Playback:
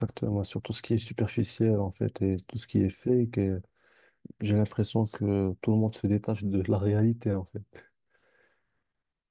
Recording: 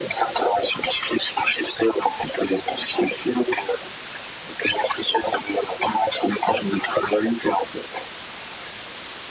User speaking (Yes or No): No